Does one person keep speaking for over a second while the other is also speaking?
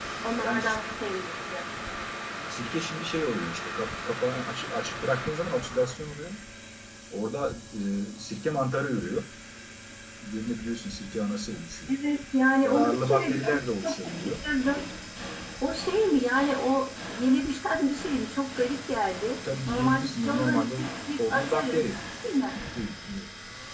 Yes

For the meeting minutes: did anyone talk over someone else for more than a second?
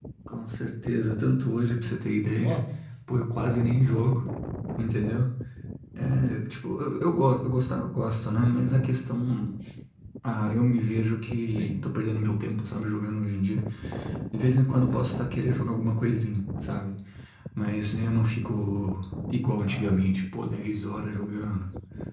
No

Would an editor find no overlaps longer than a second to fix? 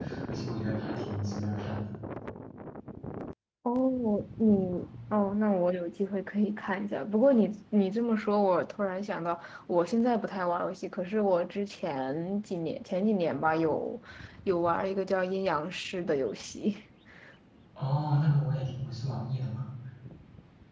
Yes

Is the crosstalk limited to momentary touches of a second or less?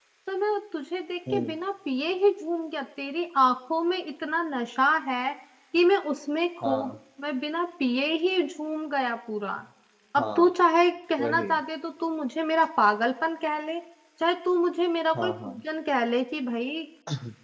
Yes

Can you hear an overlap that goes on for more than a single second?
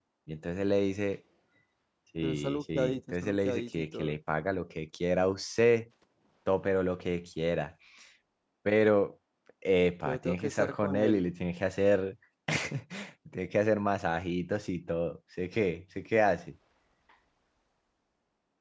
Yes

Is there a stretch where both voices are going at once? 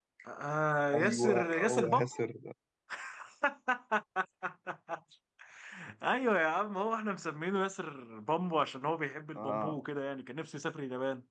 Yes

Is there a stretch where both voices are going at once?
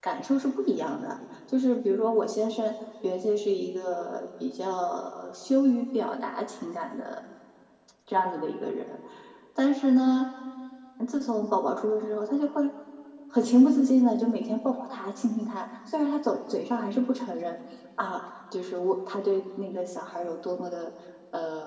No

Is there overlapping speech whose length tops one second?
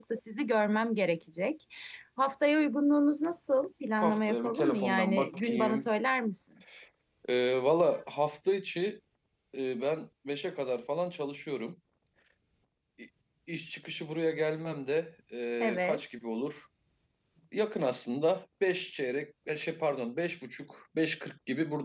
Yes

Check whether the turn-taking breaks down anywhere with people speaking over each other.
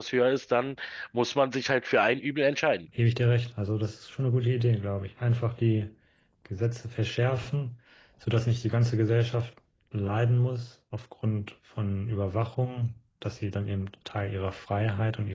No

